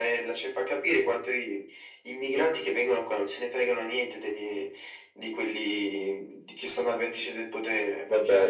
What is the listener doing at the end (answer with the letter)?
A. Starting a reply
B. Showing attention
A